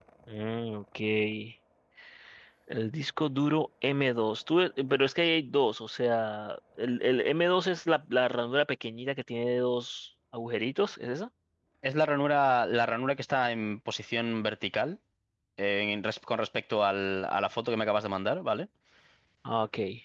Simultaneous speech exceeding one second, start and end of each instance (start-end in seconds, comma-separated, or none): none